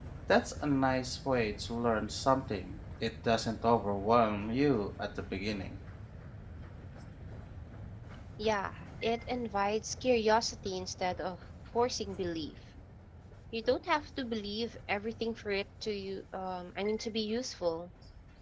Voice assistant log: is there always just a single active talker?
Yes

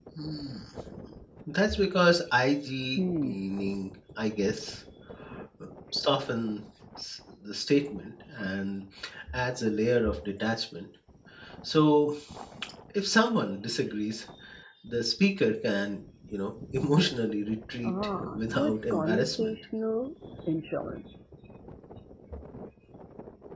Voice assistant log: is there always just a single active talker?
No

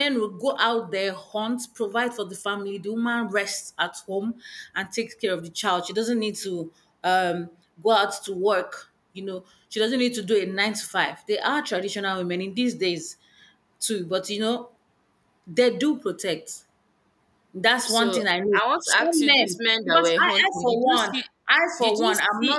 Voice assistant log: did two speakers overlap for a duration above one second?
Yes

